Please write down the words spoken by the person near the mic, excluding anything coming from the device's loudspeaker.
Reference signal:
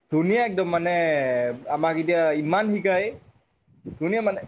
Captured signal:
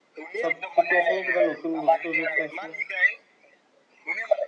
চব ঠিকে আছে নে কিবা নতুন বস্তু চাইছে নে

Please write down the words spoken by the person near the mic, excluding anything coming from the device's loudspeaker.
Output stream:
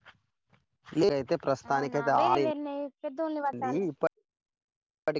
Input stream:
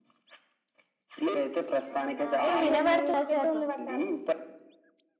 ఇప్పుడు వినబడుతుందా సార్?

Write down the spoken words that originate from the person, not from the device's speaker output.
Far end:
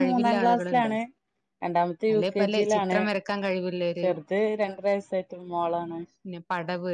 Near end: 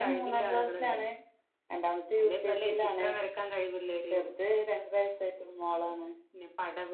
none

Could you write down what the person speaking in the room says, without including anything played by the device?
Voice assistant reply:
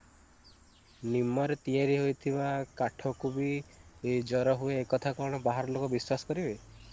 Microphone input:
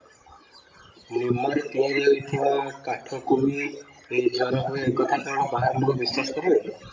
none

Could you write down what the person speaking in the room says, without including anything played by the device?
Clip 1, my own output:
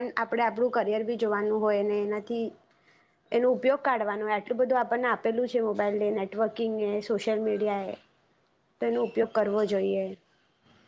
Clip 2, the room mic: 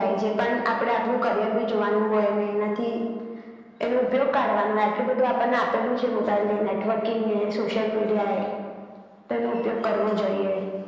none

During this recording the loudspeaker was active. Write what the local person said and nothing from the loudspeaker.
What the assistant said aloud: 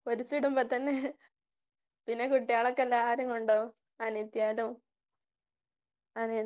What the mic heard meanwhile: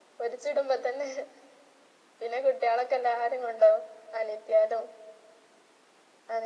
none

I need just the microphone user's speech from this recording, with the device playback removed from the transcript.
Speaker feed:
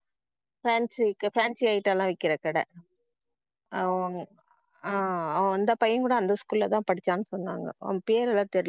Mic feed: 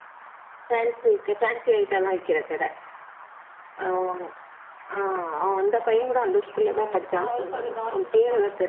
ஆ அவரு கொஞ்ச கவனிச்சுட்டு இருப்பாங்க

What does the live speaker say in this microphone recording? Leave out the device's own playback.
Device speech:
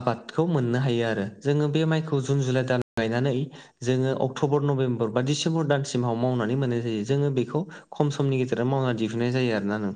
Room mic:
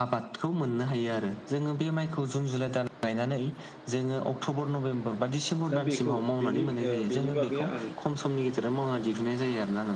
दा बेखौ बेनि ओ बेनि बागै आं

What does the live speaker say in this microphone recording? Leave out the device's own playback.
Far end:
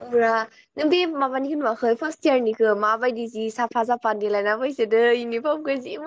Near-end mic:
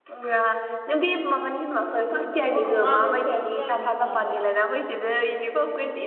औ आगष्टफोरावसो जागोन खोमा होमबा

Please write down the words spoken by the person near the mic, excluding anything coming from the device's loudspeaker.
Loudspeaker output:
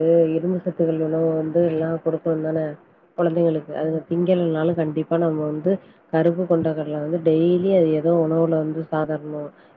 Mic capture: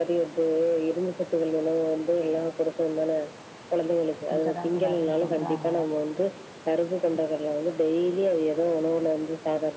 குடுக்க தா கூடாதுனு சொல்றாங்க

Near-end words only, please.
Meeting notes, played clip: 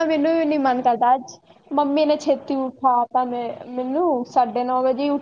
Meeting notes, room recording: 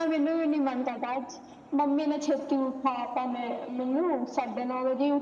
none

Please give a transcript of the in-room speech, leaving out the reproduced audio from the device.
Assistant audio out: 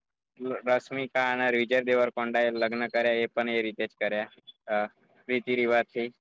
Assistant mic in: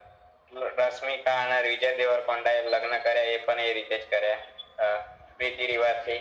none

